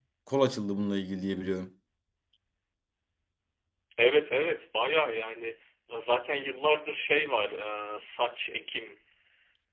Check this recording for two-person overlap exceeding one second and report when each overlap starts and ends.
none

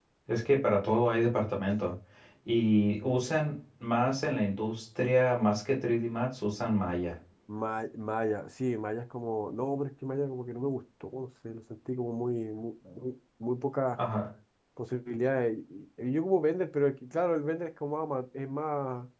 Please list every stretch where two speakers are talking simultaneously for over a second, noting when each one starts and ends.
none

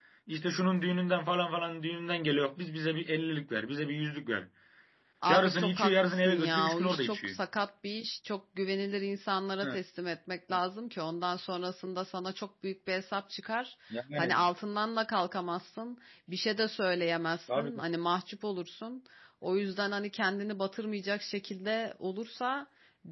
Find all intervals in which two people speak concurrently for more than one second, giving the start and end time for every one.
5.3-7.3

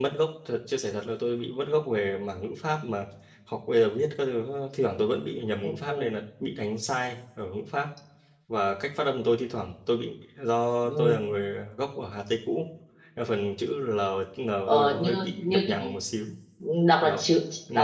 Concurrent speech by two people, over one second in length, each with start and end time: 14.7-16.0

